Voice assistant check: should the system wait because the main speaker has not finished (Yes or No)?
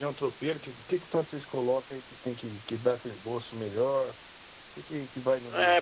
No